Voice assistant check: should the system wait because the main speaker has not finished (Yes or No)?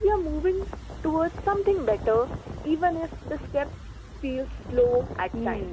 No